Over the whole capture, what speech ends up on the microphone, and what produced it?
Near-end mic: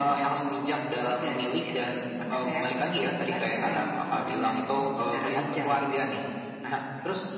both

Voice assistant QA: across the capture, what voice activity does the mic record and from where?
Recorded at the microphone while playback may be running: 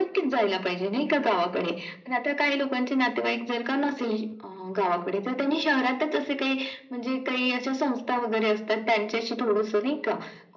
echo only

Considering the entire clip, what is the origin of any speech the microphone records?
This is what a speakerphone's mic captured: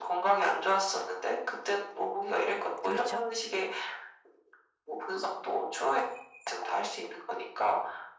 both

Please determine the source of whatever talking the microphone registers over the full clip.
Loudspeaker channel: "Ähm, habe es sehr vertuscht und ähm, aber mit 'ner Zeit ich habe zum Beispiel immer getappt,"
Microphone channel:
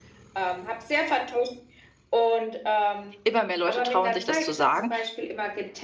both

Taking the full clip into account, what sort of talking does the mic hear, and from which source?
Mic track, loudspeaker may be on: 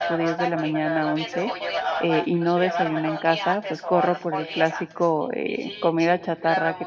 both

